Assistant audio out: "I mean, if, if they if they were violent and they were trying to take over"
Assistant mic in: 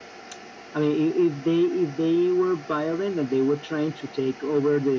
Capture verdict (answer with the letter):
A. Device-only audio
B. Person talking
A